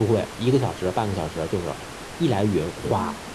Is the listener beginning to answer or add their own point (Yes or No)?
No